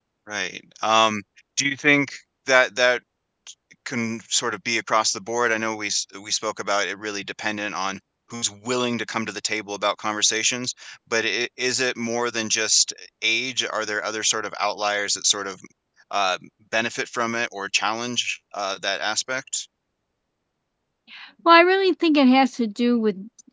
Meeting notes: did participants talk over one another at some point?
No

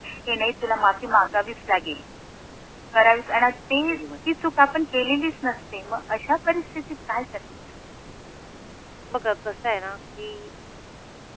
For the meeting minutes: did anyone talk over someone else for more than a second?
No

